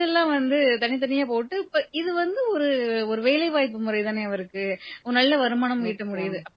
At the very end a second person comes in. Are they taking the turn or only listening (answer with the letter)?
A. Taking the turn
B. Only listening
B